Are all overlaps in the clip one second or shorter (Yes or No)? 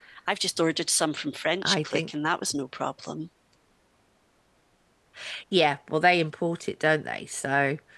Yes